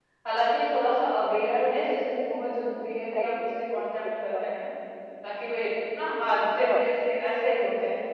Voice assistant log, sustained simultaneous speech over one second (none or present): present